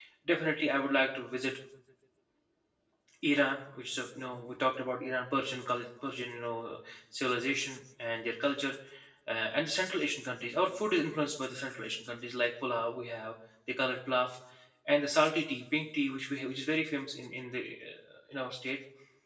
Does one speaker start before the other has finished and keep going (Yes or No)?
No